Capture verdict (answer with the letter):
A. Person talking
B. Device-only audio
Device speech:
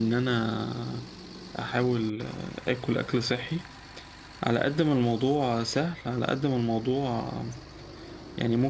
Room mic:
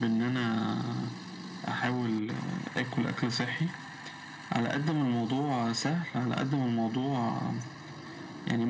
B